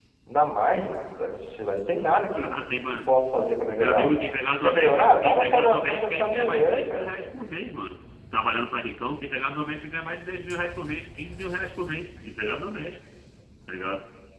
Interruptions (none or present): present